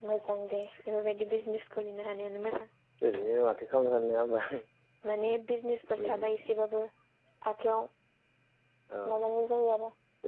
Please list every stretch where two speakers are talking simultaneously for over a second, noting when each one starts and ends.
none

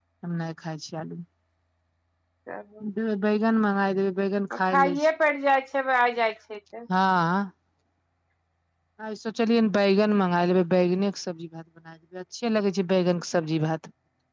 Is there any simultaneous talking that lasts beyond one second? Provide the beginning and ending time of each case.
none

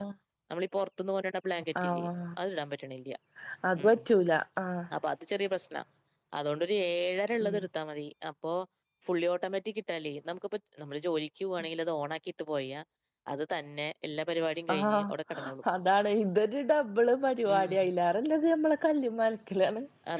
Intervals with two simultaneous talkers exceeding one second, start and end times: none

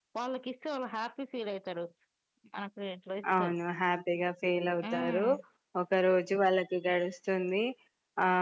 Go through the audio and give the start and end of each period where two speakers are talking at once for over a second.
none

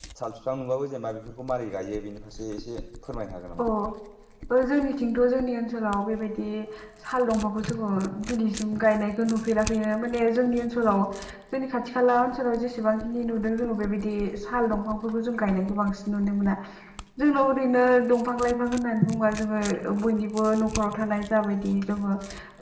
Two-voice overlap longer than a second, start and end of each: none

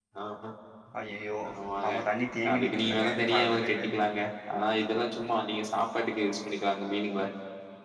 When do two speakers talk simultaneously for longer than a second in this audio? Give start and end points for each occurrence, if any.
2.5-3.8

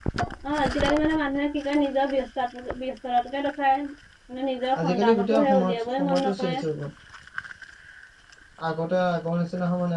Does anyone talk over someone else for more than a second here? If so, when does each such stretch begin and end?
4.8-6.6

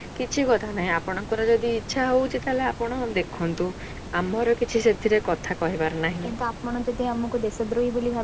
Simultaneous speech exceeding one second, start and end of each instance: none

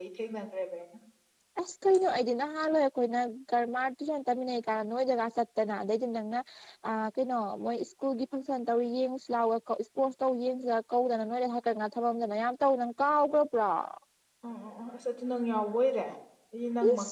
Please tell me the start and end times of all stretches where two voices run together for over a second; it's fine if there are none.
none

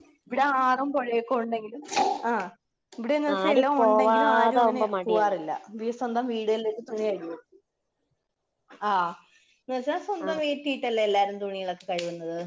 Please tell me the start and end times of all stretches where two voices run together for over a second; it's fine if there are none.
3.4-5.3

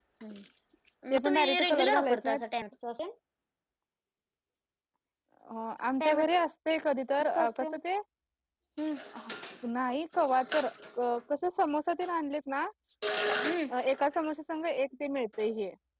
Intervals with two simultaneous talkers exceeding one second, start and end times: 1.1-2.4

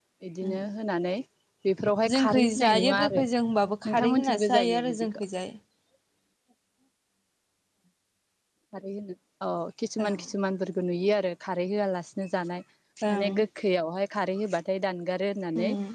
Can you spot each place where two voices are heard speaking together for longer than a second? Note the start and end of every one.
2.1-5.2

